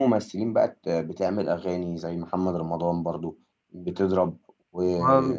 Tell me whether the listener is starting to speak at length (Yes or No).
No